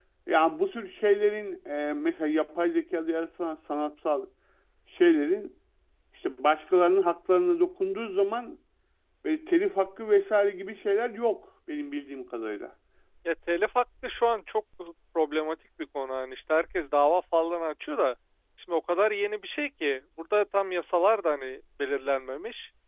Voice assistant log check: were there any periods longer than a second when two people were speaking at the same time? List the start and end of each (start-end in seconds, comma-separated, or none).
none